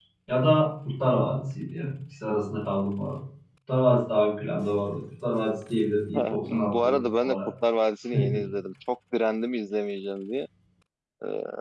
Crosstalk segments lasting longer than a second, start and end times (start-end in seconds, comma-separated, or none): 6.1-7.4